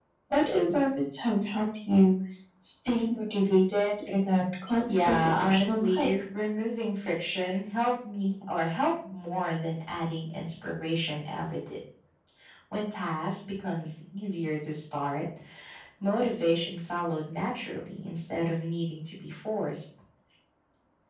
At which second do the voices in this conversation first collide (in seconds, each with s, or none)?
4.9 s